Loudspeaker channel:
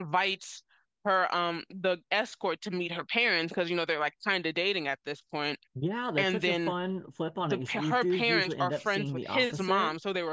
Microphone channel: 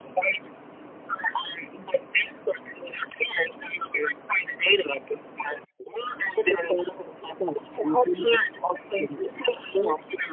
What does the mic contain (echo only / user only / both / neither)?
echo only